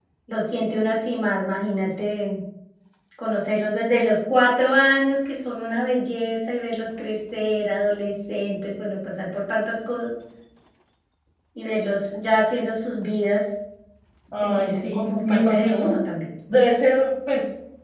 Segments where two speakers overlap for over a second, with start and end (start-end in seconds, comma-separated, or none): 14.4-15.9